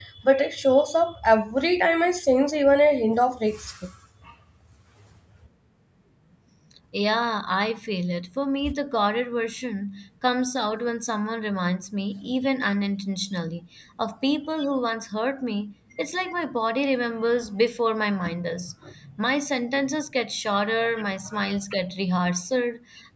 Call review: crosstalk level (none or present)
none